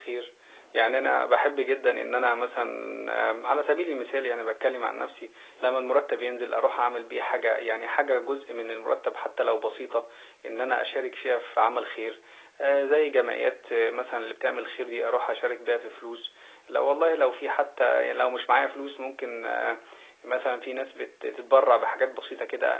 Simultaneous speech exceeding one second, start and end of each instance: none

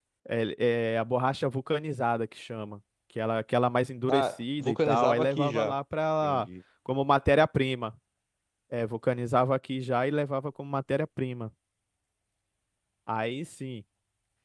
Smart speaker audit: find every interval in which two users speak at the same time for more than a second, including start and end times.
4.1-5.8

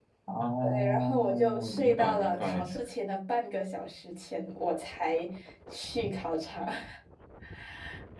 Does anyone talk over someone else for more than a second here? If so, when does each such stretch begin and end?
0.6-2.7

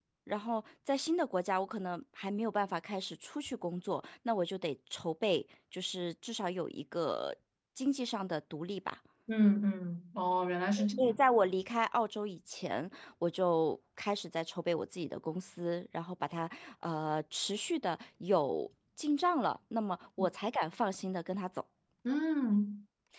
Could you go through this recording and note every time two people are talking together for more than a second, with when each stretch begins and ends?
none

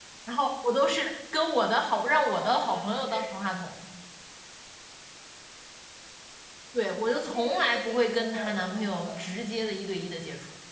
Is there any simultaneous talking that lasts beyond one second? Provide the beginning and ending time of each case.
1.9-3.2, 6.8-9.2

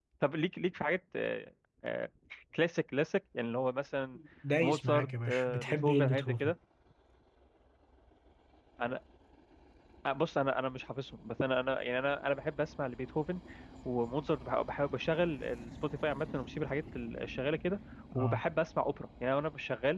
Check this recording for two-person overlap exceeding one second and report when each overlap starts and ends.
4.6-6.5

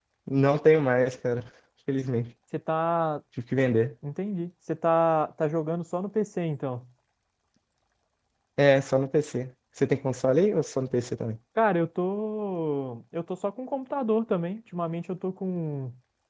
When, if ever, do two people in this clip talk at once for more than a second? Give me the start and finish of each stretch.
none

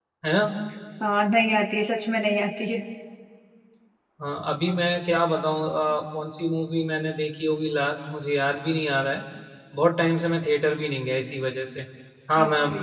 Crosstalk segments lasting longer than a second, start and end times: none

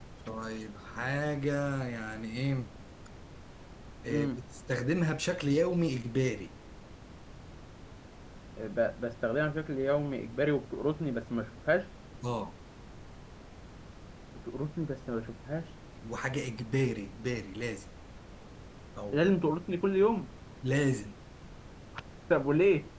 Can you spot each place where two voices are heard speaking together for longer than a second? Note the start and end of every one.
none

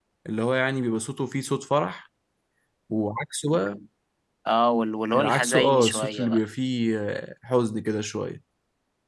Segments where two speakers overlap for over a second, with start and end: 5.2-6.5

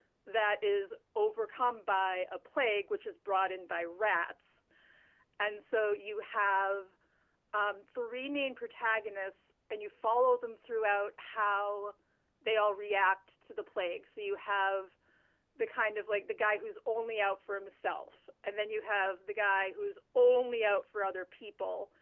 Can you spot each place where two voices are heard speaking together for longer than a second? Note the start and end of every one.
none

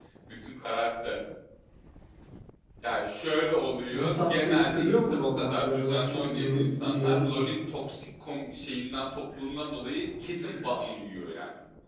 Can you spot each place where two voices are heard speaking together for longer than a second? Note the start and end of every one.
3.9-7.4

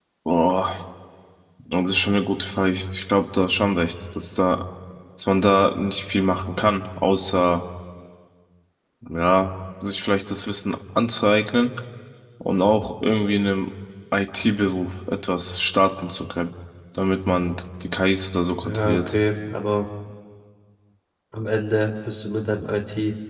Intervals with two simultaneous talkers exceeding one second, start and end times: none

